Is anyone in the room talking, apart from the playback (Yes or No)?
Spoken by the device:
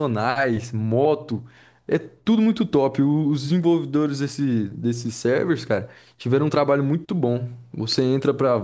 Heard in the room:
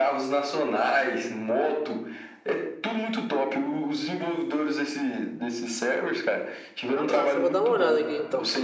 Yes